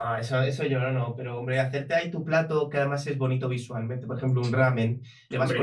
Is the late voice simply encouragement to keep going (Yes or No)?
Yes